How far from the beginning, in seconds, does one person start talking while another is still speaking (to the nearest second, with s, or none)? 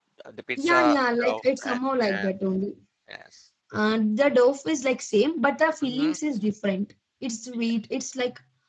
1 s